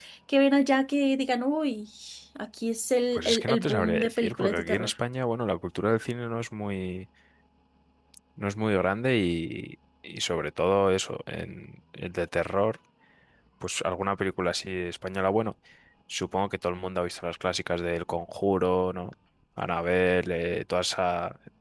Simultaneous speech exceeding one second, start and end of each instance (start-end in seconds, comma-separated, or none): 3.1-4.9